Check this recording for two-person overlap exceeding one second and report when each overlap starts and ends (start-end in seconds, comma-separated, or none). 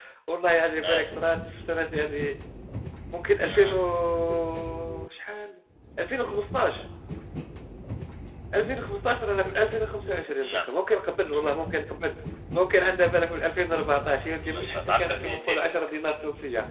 14.4-15.9